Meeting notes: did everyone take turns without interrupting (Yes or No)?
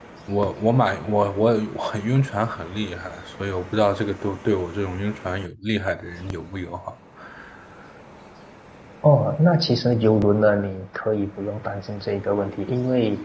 Yes